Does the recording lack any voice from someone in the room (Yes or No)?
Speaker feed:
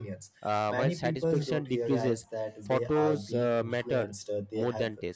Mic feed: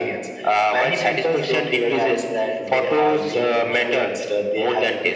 Yes